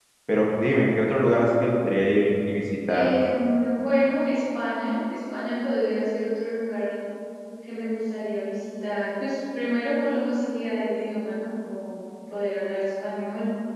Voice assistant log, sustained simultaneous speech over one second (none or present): none